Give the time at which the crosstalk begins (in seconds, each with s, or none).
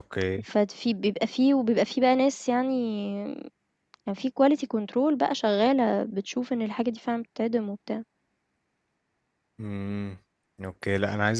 none